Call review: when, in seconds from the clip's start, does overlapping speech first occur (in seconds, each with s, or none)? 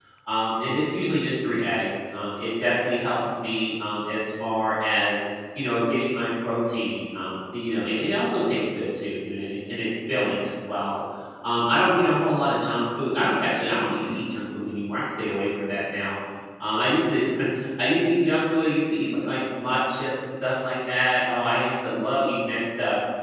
none